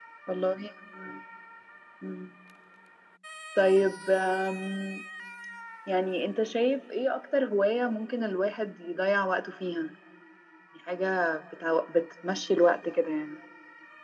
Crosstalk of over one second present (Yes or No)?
No